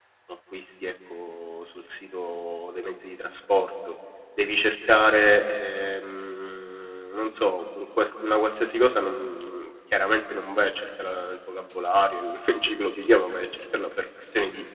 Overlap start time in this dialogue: none

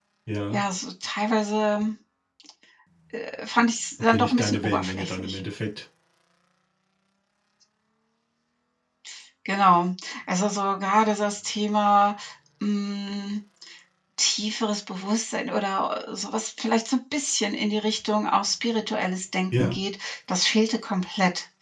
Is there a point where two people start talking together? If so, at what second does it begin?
4 s

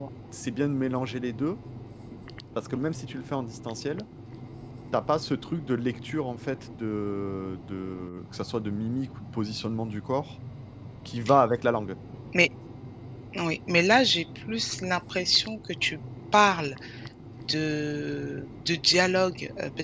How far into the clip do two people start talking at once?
none

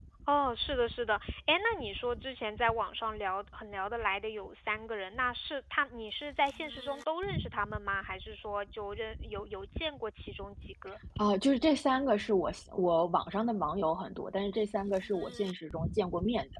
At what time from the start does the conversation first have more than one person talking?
none

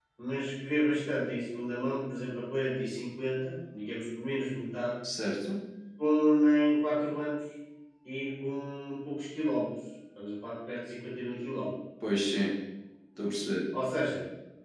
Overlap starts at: none

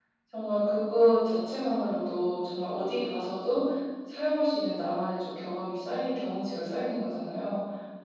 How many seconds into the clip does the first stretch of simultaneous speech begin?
none

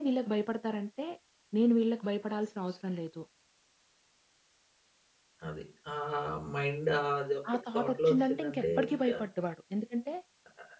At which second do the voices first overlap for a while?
8 s

